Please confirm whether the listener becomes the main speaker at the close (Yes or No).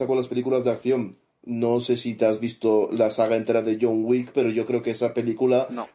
No